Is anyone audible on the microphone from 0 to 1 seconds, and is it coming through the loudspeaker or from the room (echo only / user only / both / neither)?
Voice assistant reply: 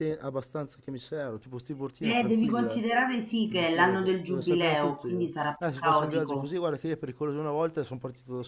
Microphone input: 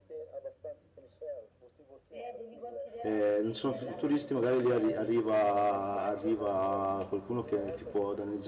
echo only